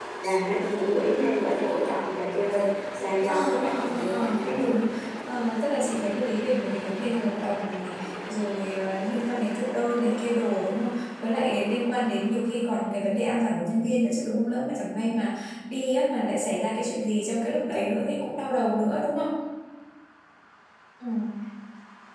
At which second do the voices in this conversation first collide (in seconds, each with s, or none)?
3.3 s